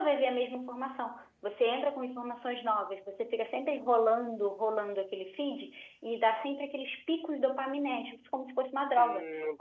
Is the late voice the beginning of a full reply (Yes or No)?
Yes